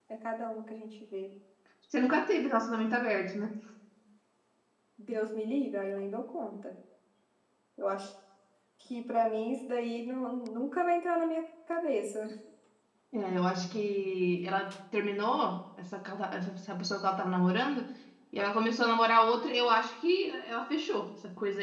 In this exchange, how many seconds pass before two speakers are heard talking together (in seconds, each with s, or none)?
none